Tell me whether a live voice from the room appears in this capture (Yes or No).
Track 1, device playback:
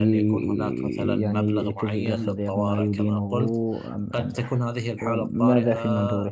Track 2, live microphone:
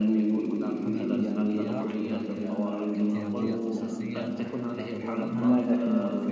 Yes